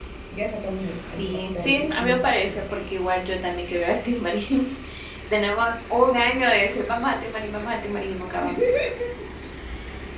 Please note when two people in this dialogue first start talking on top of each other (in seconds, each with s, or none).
1.0 s